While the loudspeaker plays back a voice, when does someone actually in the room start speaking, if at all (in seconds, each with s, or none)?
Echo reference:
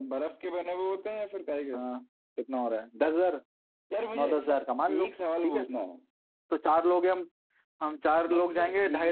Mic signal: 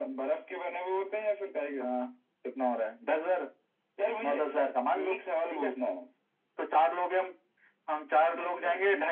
none